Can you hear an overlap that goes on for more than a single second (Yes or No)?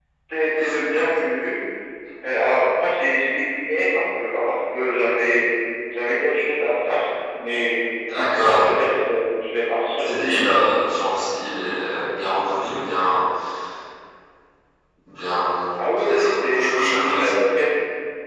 Yes